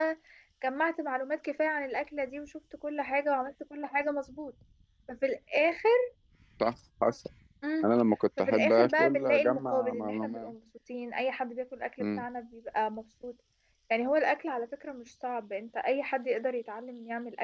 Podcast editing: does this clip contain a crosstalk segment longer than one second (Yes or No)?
Yes